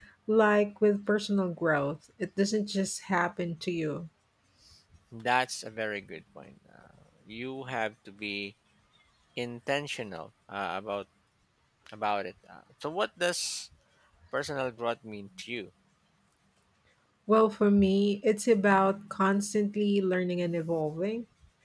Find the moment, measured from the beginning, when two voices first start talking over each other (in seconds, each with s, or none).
none